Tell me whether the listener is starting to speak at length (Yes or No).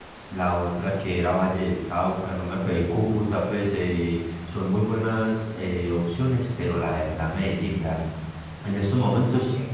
No